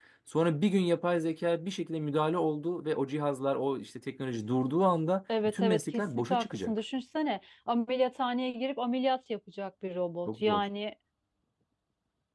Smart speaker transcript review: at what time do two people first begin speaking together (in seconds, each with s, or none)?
5.4 s